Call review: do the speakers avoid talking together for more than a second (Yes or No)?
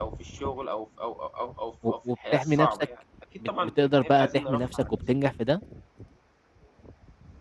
No